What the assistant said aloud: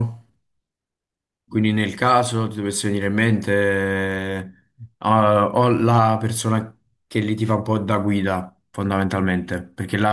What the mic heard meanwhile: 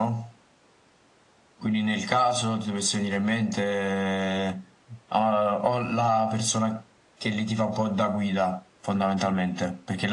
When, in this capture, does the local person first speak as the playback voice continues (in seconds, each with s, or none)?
none